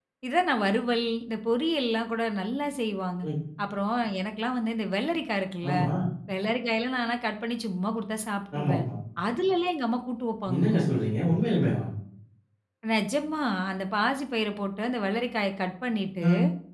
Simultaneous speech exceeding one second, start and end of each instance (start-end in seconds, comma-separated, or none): none